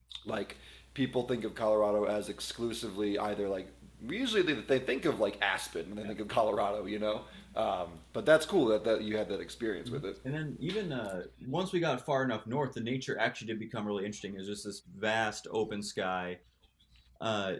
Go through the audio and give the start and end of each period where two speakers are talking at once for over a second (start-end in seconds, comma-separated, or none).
none